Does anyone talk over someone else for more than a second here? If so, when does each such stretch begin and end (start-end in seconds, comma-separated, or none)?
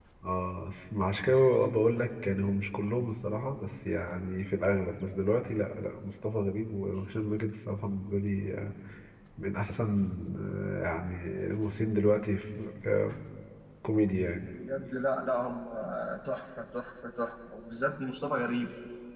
none